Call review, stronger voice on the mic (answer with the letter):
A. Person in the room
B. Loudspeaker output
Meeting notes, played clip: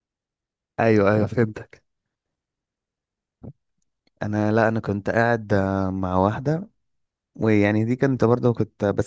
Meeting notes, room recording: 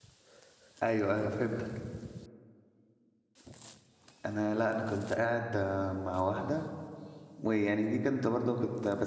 B